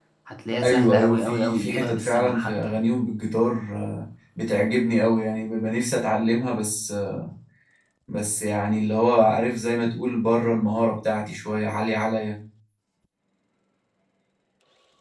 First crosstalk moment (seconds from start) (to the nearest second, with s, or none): 1 s